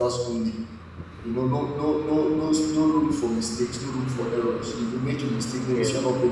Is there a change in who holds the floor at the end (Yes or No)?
No